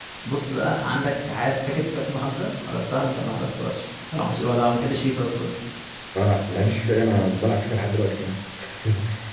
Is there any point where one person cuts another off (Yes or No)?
No